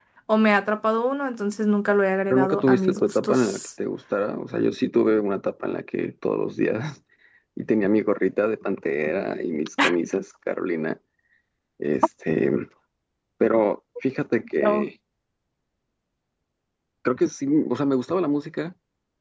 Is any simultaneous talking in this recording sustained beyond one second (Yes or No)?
Yes